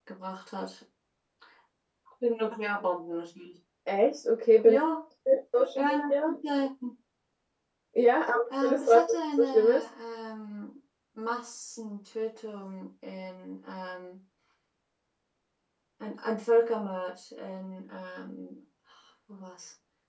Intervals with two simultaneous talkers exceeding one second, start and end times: 8.5-9.8

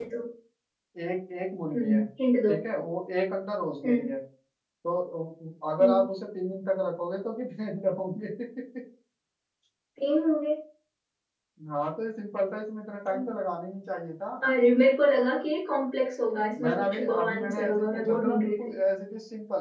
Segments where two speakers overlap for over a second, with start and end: 16.6-18.8

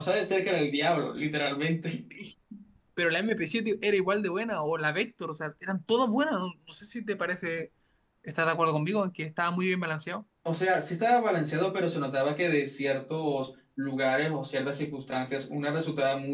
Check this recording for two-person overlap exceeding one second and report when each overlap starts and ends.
none

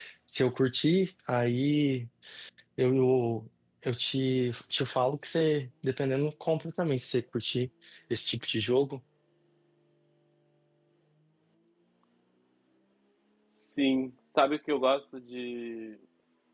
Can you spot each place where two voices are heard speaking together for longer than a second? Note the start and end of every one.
none

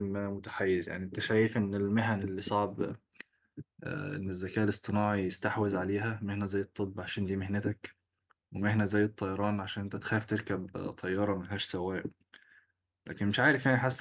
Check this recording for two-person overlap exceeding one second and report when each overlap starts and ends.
none

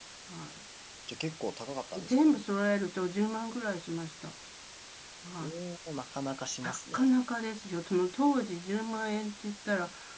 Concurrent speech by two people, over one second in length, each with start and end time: none

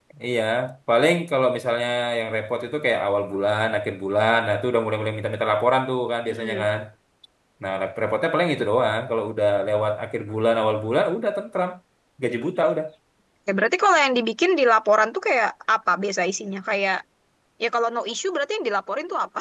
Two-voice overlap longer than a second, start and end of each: none

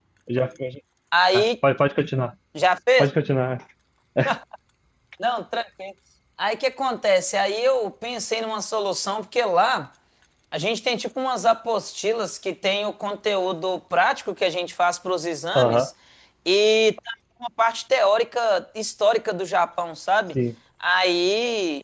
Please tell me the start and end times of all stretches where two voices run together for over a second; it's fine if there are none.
none

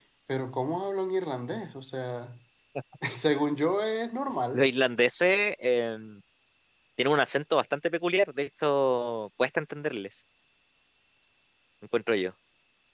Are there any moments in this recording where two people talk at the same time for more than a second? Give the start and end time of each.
none

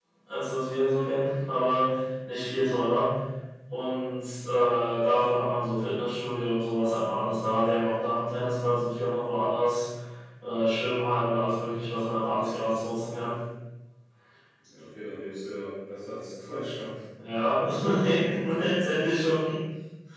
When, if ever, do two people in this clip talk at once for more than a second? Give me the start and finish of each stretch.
none

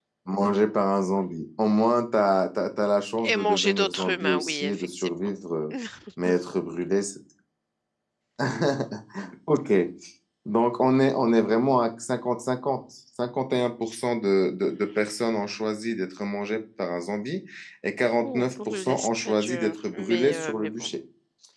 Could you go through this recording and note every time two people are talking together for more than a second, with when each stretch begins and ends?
3.2-5.1, 18.2-20.9

